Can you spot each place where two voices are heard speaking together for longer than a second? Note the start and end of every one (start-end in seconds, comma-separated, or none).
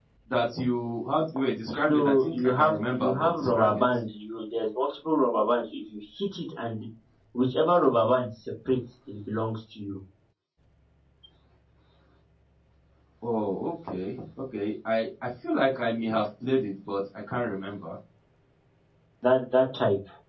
1.9-3.8